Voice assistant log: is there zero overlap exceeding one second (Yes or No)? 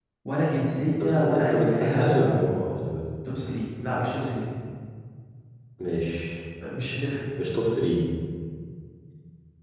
No